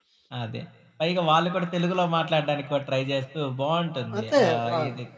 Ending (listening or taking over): taking over